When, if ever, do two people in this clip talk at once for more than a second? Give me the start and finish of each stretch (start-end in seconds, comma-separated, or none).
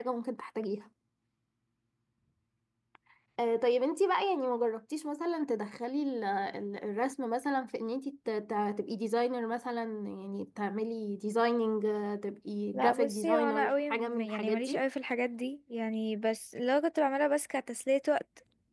12.7-14.8